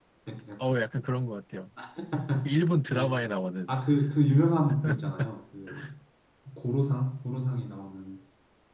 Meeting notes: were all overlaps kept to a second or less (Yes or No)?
Yes